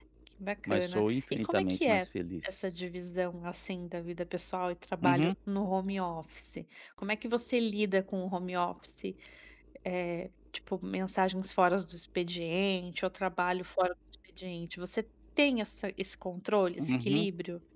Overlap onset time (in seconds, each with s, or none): 0.7 s